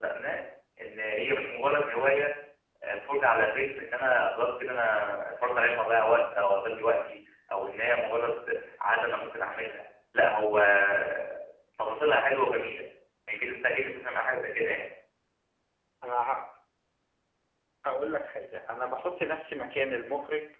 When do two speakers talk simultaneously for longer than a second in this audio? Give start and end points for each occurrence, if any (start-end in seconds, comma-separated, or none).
none